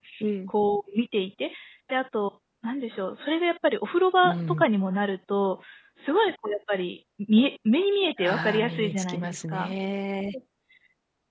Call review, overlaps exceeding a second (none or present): present